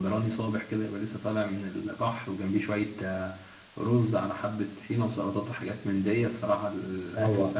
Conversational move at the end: taking over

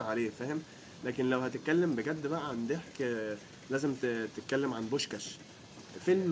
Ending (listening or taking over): listening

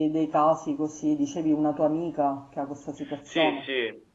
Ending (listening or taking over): taking over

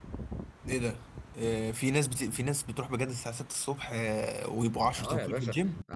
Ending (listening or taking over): taking over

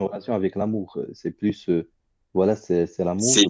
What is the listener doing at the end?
listening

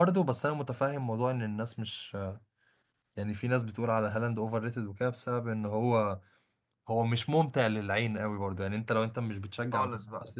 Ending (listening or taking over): listening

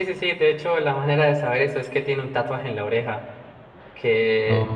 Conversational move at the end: listening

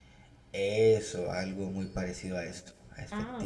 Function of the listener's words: taking over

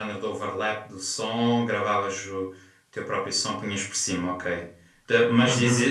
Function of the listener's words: listening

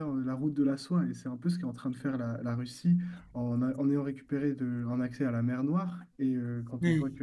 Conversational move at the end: listening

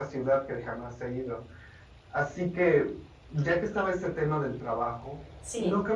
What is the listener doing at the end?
listening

